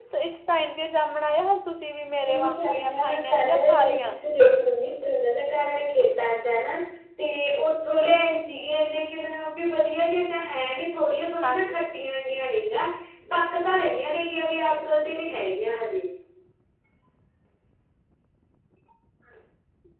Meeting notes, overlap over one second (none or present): present